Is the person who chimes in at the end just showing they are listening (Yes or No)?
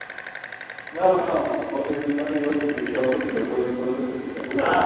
No